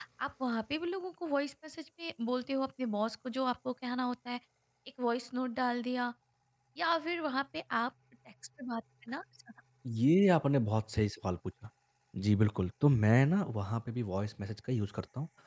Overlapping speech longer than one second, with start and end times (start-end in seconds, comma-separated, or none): none